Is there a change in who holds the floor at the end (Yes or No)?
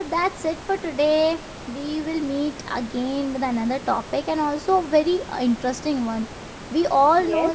No